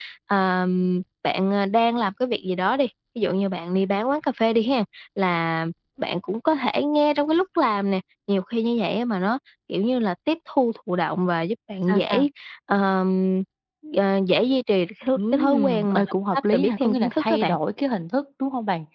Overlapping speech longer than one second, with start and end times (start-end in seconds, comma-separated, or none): 15.2-17.5